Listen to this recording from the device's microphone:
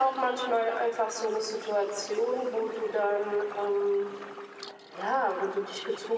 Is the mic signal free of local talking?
Yes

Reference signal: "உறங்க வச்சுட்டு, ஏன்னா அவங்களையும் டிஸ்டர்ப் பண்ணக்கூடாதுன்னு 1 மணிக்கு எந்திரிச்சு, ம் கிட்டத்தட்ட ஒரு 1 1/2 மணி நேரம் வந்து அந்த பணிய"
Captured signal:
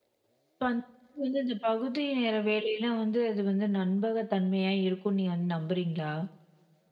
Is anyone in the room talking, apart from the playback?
Yes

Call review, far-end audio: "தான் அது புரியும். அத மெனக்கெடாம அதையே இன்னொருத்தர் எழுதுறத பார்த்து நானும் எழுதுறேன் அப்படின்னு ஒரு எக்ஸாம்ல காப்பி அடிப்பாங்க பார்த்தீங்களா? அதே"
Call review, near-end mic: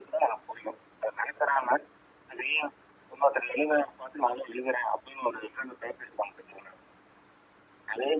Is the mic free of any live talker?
Yes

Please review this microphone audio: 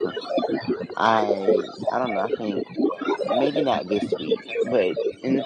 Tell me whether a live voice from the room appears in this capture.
Yes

